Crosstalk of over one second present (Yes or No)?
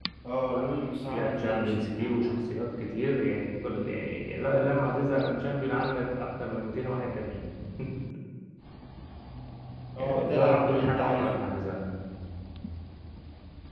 Yes